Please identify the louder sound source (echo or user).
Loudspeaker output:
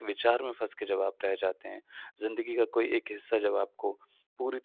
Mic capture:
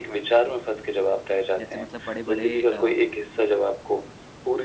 echo